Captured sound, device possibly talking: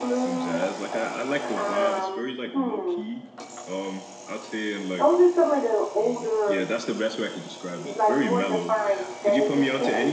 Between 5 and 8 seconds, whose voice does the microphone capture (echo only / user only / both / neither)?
both